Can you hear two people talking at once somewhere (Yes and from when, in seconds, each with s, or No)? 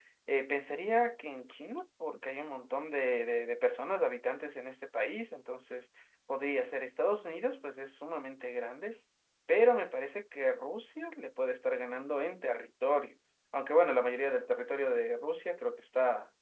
No